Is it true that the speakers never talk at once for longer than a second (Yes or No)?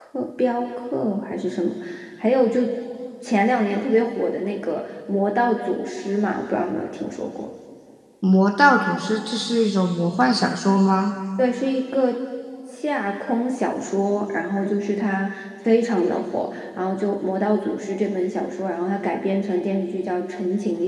Yes